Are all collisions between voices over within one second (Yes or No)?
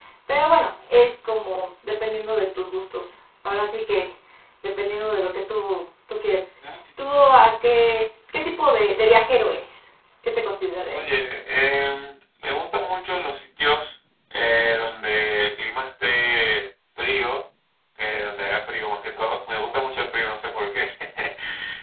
Yes